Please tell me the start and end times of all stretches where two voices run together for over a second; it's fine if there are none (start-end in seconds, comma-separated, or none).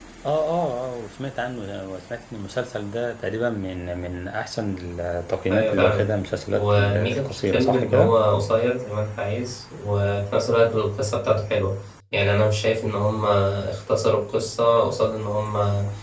6.5-8.1